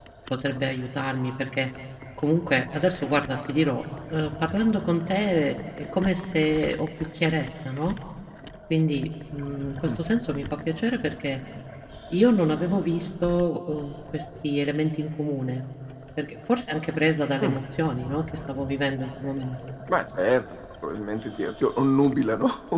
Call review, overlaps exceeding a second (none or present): none